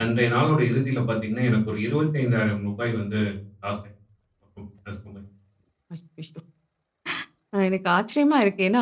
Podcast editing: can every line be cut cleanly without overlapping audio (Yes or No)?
Yes